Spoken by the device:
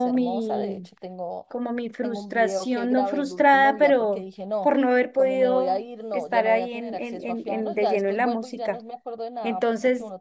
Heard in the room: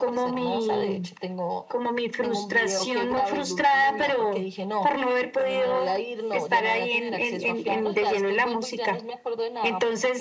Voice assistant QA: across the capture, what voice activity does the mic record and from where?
echo only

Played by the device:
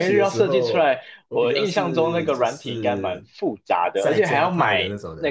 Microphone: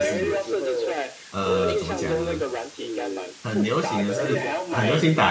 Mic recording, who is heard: both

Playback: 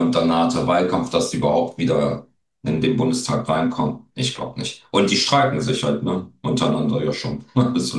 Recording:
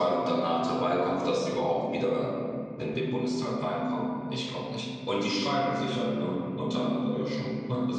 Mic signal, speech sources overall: echo only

